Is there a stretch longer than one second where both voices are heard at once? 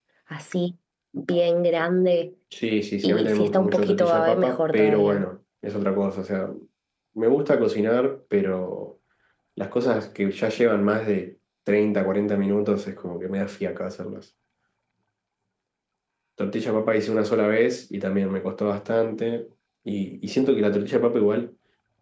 Yes, from 3.0 s

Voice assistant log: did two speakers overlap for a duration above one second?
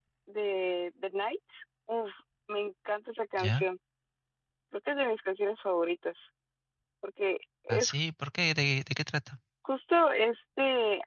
No

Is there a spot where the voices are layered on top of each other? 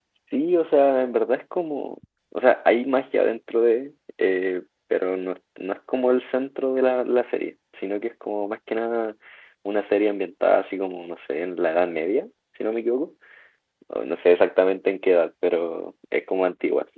No

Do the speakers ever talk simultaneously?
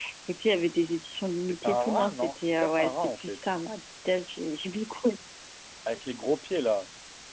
Yes, from 1.4 s

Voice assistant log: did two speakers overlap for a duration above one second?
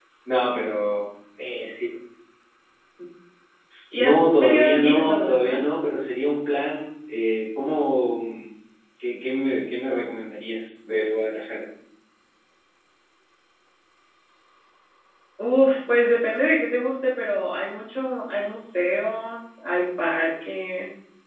Yes, from 4.0 s

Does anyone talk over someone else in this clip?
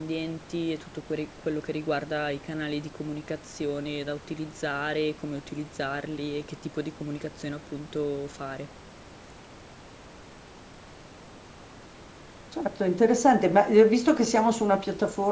No

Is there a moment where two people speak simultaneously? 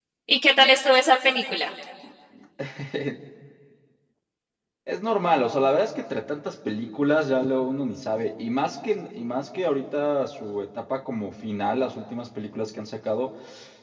No

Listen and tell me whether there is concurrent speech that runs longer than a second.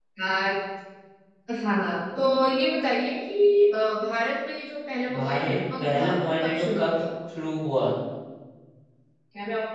Yes, from 5.1 s

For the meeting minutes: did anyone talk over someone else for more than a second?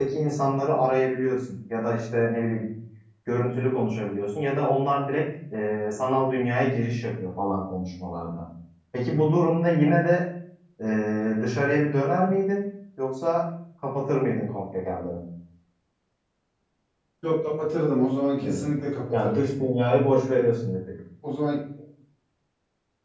No

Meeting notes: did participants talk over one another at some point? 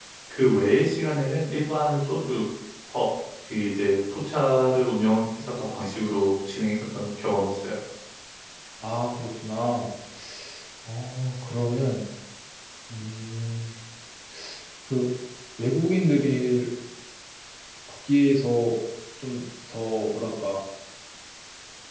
No

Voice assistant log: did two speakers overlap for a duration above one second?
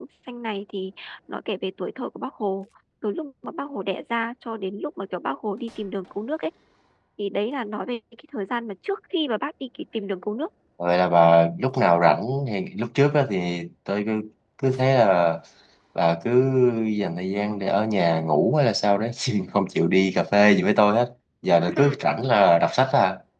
No

